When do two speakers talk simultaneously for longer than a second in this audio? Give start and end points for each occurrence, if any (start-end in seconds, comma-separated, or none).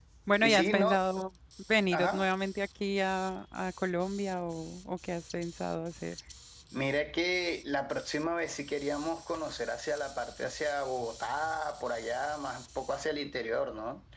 none